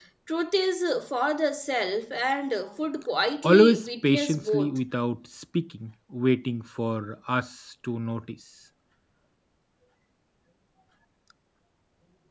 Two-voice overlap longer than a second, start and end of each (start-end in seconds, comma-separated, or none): 3.5-4.8